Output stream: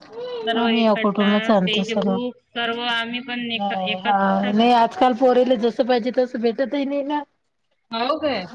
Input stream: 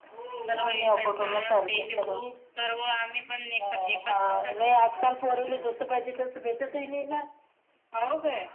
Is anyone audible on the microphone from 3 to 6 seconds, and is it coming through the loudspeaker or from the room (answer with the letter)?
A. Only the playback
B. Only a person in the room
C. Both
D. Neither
A